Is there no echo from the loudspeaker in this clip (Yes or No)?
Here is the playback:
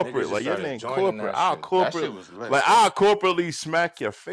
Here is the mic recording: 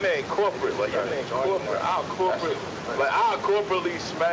No